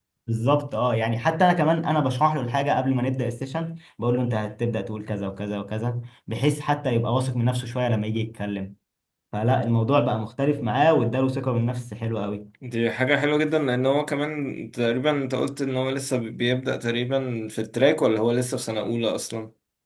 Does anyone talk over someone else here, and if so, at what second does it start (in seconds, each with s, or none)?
none